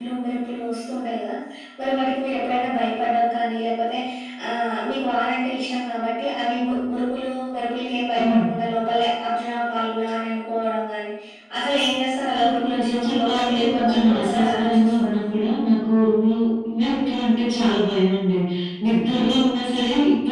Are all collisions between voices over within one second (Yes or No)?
No